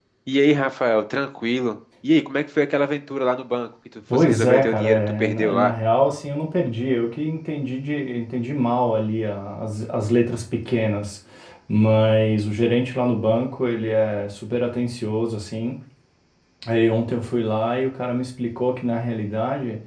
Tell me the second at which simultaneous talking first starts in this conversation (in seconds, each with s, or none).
4.1 s